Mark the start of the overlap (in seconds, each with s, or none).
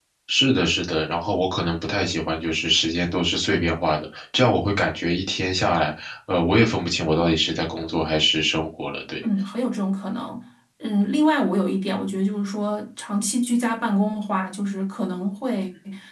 none